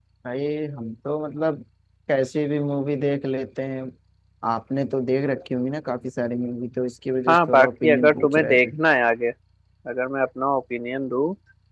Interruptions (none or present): present